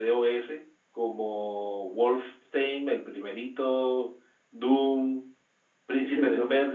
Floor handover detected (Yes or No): No